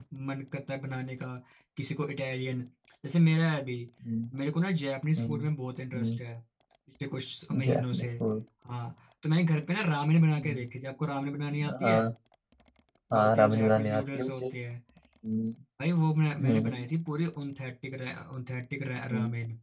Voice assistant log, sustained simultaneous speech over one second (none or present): present